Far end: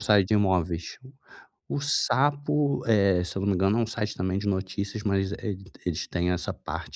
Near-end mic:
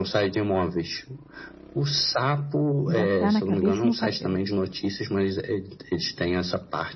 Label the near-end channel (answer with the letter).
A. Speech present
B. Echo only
A